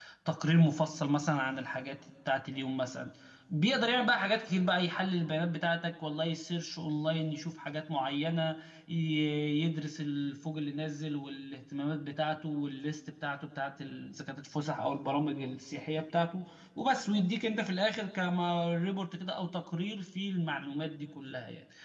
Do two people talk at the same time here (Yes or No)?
No